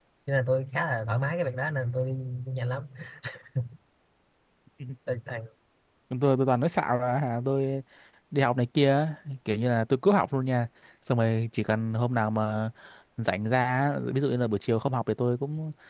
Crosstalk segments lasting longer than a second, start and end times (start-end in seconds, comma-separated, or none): none